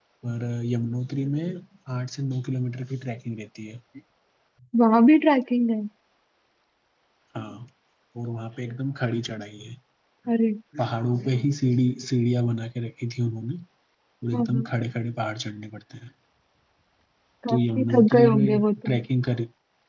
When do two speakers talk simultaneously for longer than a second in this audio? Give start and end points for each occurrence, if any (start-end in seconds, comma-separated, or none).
17.5-19.0